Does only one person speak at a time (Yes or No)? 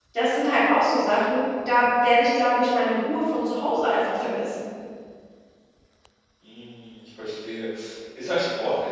Yes